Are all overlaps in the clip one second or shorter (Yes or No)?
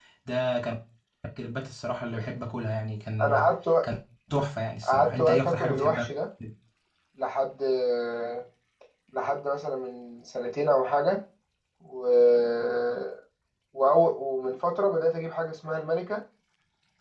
No